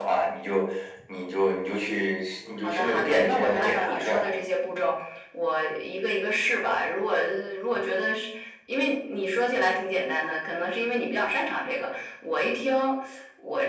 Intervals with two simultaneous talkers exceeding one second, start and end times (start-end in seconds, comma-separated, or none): 2.6-4.3